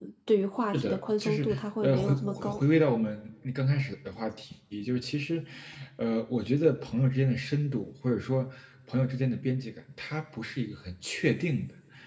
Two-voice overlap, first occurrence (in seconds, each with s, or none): 0.7 s